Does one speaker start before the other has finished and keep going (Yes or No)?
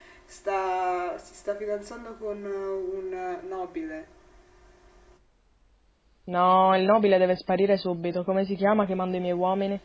No